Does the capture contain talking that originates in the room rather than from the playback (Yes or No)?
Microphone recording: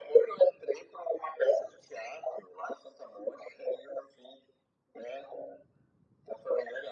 No